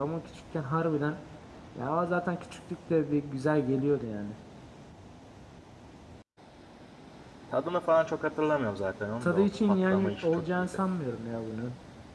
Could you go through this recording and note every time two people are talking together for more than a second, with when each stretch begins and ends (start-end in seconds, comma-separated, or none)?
9.2-10.7